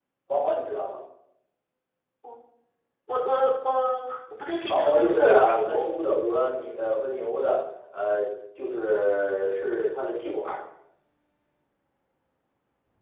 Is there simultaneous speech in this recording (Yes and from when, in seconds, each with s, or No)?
Yes, from 4.7 s